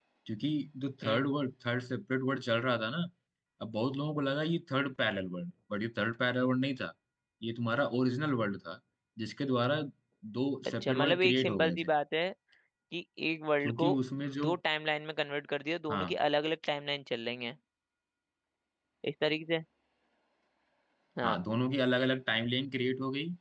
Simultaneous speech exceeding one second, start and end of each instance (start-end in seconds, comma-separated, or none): 10.7-11.9